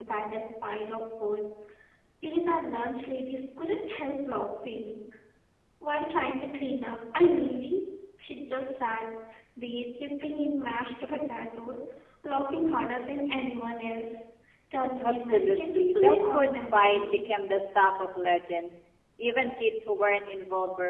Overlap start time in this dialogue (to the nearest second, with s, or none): 15 s